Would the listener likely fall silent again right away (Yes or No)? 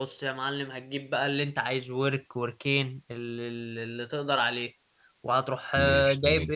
Yes